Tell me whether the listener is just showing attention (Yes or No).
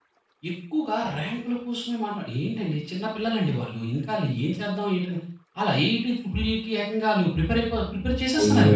No